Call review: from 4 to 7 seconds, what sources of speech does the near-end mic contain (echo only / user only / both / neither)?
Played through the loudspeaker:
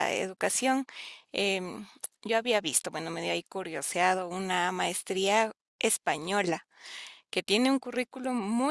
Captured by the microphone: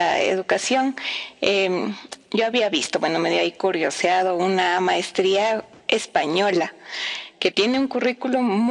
echo only